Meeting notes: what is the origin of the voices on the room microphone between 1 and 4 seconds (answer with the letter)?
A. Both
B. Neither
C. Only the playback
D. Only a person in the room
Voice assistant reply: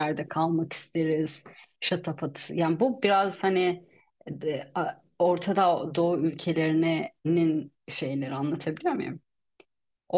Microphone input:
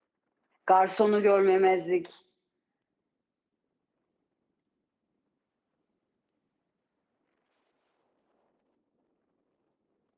D